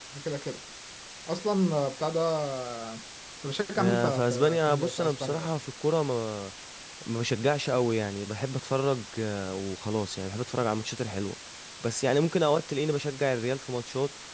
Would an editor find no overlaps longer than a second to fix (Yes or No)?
No